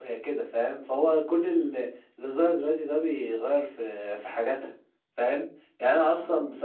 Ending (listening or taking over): listening